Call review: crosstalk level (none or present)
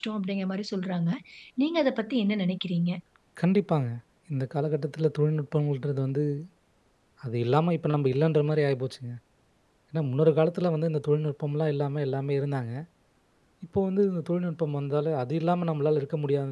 none